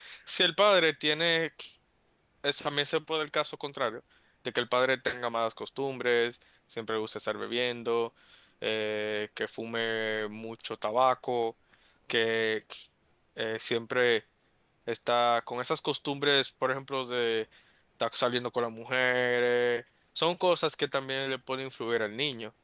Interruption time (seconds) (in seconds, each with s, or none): none